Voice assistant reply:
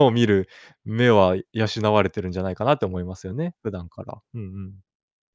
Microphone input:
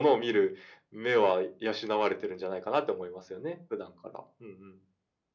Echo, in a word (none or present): present